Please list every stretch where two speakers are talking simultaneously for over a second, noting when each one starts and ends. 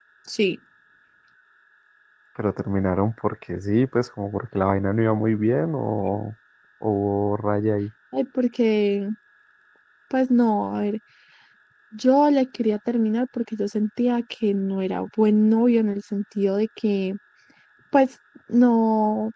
none

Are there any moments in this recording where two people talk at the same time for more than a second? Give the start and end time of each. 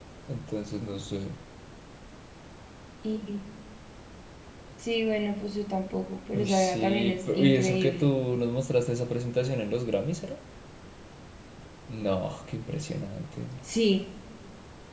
6.3-8.1

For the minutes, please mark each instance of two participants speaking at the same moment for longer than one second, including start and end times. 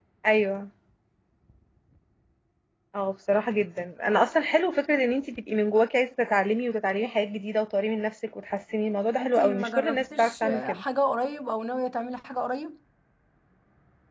9.2-10.8

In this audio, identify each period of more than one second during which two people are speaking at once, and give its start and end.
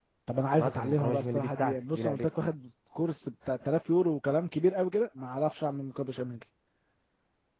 0.6-2.3

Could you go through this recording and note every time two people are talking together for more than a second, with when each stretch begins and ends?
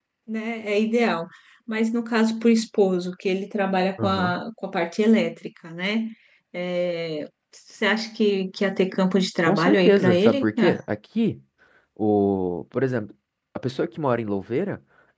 9.4-10.8

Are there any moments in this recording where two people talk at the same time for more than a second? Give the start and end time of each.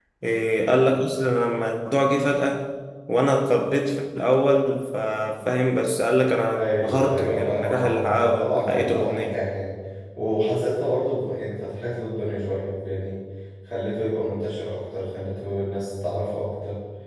6.6-9.4

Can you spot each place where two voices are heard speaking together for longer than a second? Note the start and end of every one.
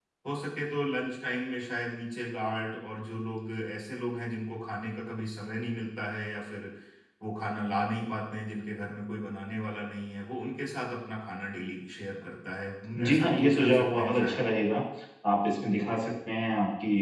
13.0-14.4

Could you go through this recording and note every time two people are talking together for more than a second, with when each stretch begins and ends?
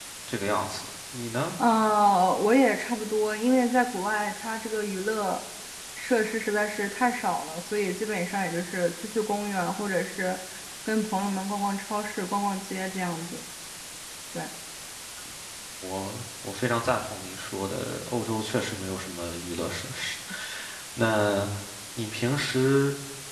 none

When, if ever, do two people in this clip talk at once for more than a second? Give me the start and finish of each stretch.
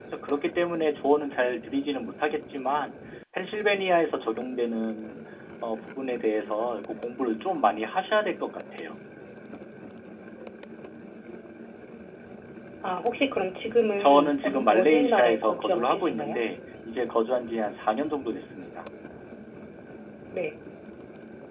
14.0-16.4

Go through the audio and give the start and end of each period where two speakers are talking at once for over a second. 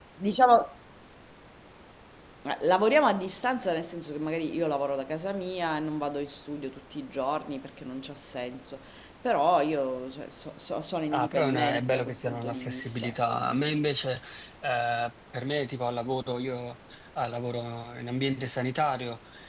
11.1-13.8

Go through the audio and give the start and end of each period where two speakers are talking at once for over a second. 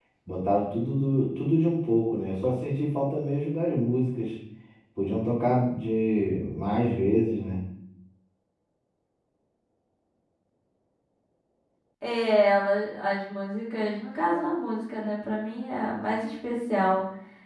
none

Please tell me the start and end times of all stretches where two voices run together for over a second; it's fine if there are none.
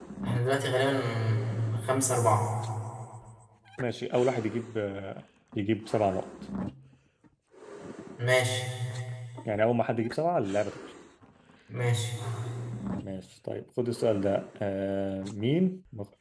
none

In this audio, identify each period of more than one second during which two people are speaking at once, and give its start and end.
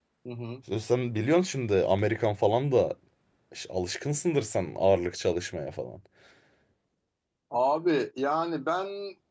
none

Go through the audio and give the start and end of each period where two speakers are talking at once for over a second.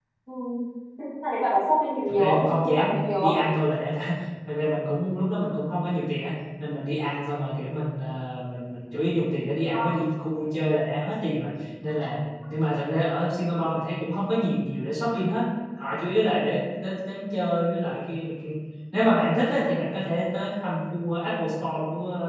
2.1-3.4

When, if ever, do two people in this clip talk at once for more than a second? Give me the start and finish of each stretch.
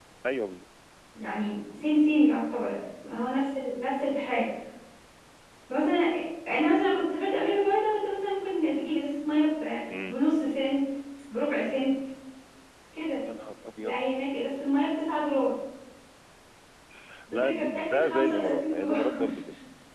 17.3-19.1

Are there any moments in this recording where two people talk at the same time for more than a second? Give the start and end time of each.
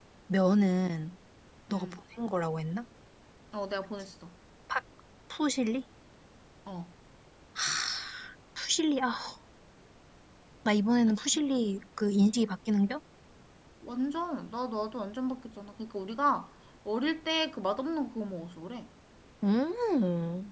none

